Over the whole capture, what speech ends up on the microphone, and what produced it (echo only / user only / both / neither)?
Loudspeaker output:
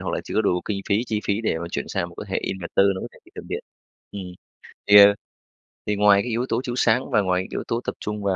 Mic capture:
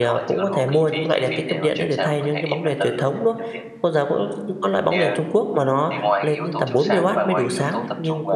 both